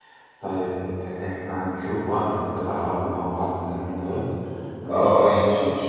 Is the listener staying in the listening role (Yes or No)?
No